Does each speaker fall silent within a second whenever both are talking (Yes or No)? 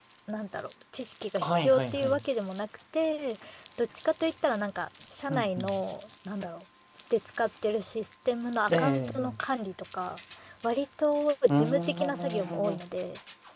No